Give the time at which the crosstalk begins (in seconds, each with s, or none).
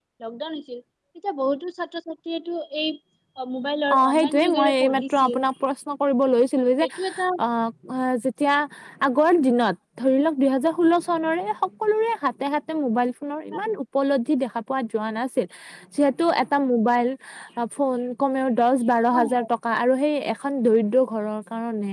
4.0 s